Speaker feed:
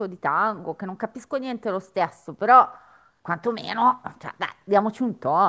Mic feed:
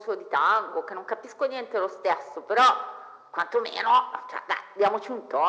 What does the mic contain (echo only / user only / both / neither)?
echo only